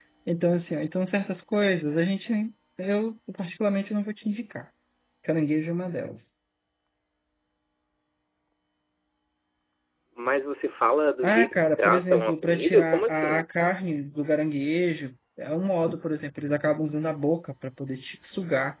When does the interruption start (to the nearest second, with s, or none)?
11 s